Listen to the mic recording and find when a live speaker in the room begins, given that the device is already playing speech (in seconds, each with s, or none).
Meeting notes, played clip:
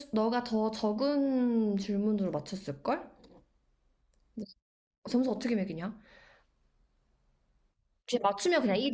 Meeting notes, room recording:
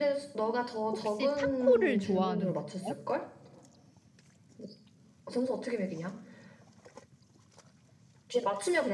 0.9 s